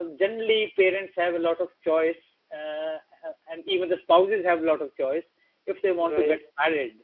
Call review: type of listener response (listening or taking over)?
listening